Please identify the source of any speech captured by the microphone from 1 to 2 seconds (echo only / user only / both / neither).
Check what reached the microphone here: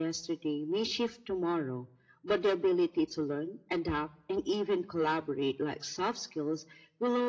echo only